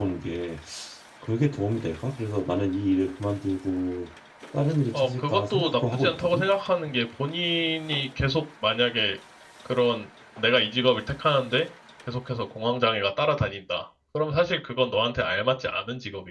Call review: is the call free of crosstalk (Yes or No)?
No